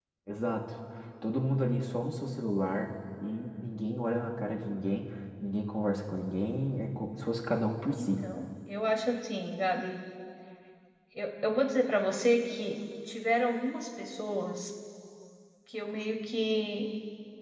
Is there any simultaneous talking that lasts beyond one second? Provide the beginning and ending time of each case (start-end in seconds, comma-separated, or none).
none